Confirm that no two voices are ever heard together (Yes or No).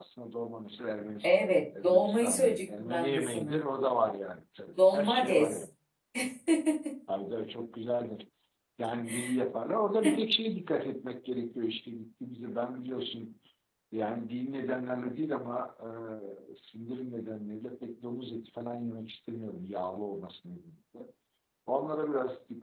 No